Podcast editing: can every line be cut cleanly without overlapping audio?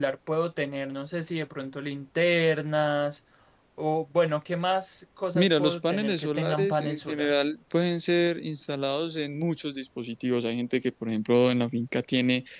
No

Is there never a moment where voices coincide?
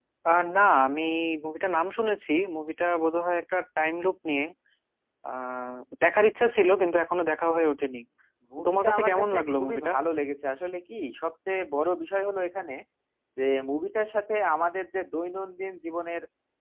No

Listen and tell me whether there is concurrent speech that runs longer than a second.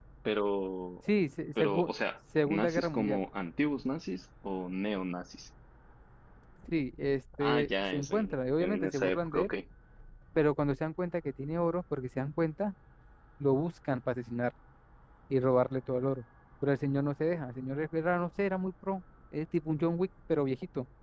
Yes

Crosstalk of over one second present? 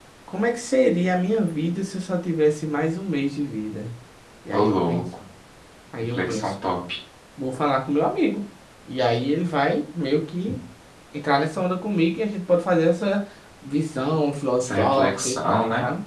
Yes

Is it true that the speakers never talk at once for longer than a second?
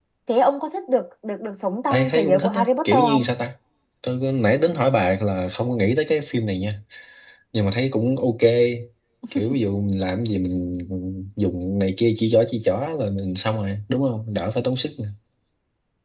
No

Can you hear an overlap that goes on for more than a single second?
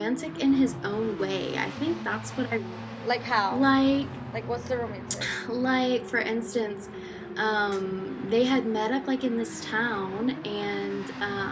No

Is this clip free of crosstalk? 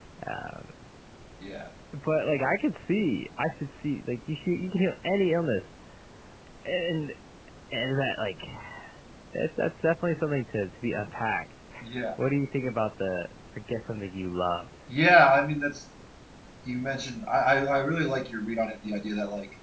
Yes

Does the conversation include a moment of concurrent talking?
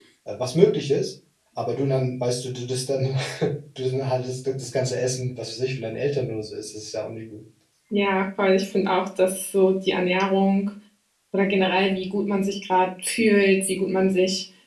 No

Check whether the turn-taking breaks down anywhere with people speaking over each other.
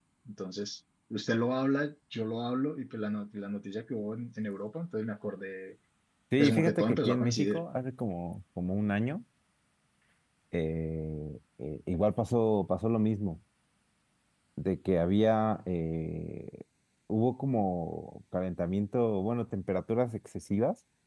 Yes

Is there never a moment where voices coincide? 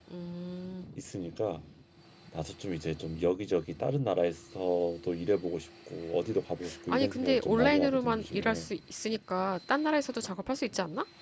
No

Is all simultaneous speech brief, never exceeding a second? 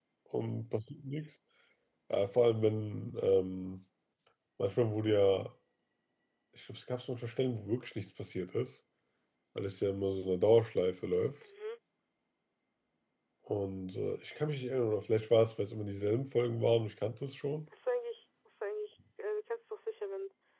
Yes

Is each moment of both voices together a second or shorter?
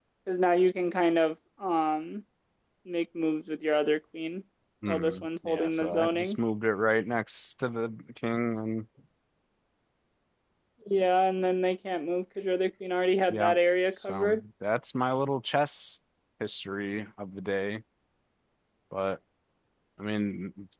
No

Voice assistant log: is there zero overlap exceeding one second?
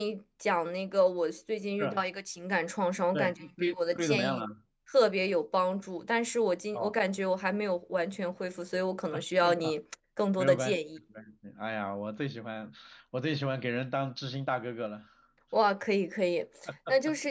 No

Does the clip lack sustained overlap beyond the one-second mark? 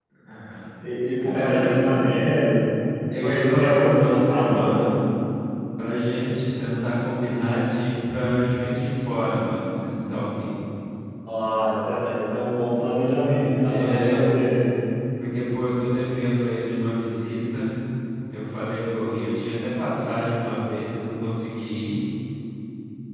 No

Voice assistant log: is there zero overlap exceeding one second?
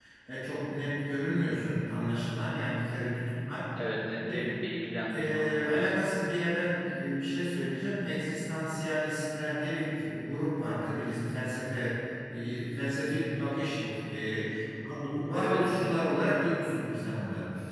Yes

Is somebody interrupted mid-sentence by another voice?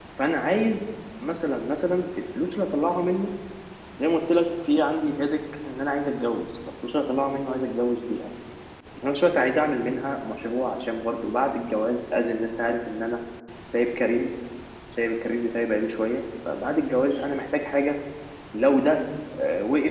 No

